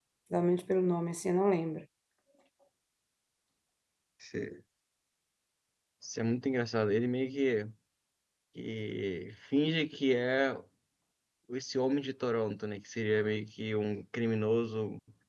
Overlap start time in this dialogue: none

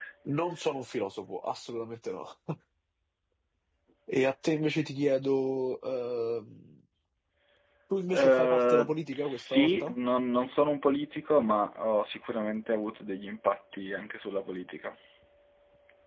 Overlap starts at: 8.1 s

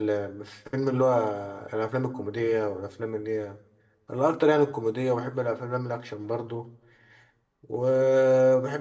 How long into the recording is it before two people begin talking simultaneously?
none

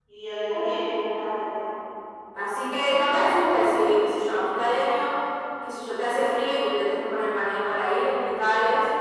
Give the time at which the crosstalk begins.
none

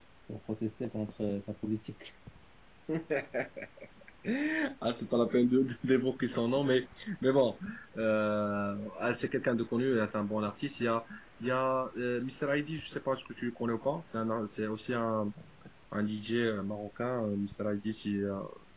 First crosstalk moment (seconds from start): none

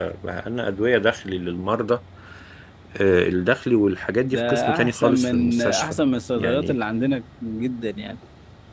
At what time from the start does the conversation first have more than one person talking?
4.2 s

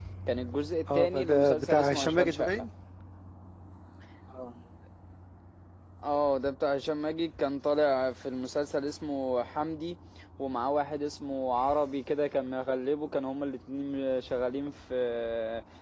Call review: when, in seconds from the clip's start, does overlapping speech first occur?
0.9 s

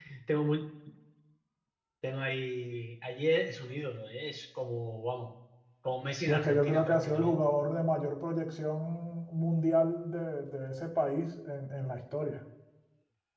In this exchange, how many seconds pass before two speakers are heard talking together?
6.2 s

